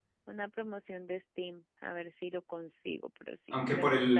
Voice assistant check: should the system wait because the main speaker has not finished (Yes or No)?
No